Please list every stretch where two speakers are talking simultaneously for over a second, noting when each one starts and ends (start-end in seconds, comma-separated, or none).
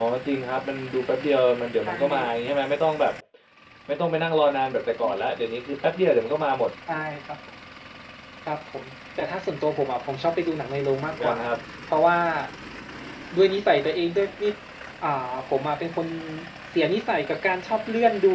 none